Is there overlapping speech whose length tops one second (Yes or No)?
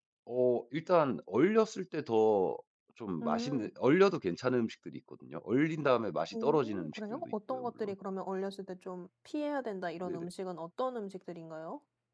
Yes